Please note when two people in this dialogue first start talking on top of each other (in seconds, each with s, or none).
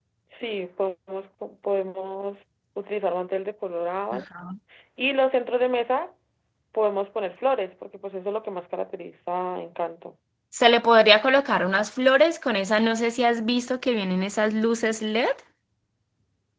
none